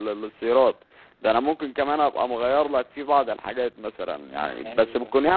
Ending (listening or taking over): listening